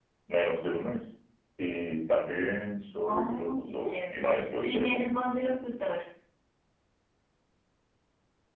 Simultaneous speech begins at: 3.0 s

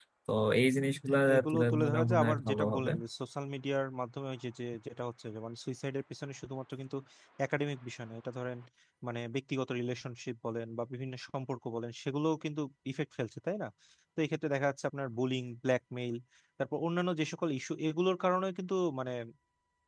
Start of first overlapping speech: 1.1 s

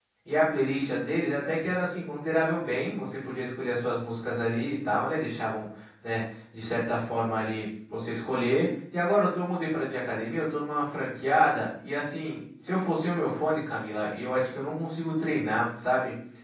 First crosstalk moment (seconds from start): none

